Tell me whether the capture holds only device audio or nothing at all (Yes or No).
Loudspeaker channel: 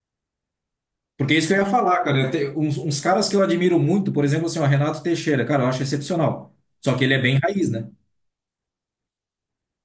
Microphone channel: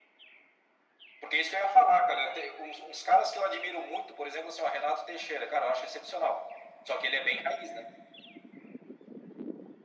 Yes